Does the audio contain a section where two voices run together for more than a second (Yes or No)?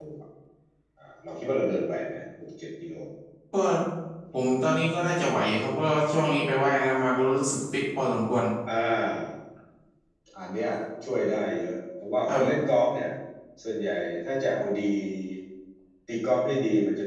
No